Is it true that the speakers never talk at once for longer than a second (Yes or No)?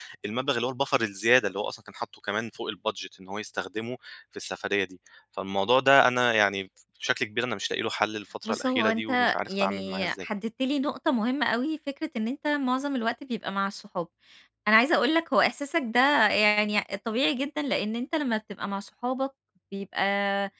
No